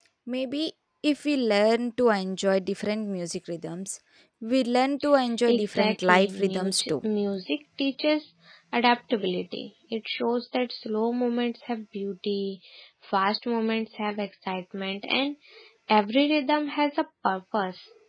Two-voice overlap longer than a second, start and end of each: 5.5-7.1

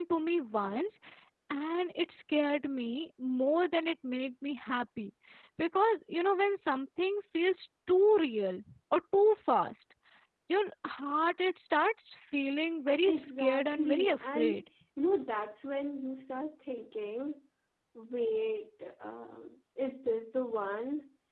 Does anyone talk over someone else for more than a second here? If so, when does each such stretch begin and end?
13.1-14.5

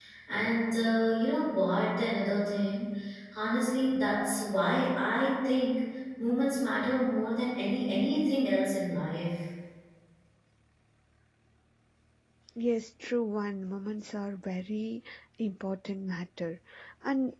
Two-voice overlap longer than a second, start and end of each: none

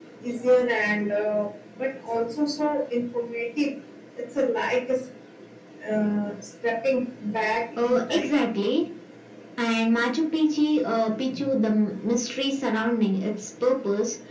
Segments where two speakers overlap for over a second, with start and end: none

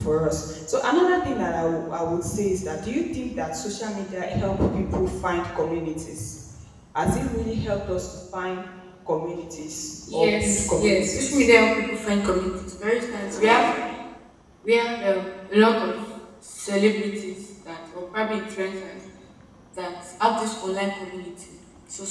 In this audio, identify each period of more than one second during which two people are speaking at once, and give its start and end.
10.1-11.5

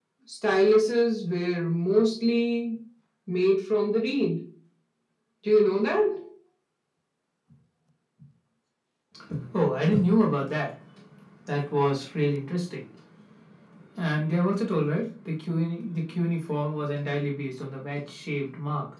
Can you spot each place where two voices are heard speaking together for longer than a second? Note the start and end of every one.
none

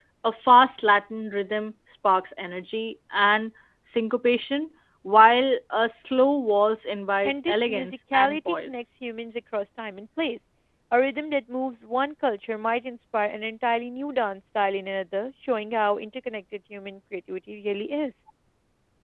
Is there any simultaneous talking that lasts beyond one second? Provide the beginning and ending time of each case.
7.2-8.8

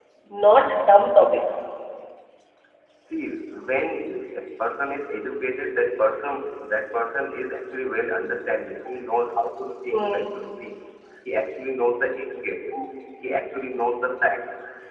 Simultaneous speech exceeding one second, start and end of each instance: none

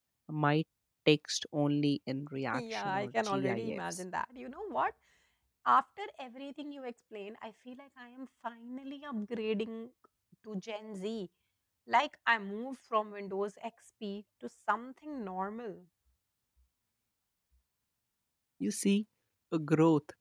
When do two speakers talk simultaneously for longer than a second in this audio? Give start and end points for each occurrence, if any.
2.5-4.0

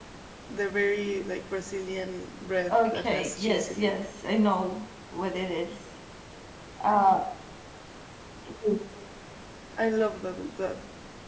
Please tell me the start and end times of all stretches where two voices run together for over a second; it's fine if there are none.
2.7-3.9

